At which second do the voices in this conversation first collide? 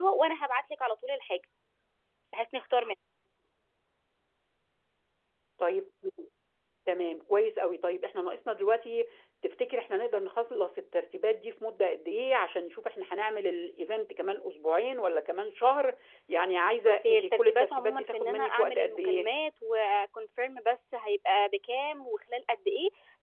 16.9 s

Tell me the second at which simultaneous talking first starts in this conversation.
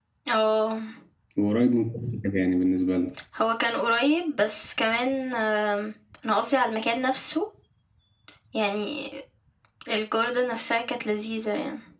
none

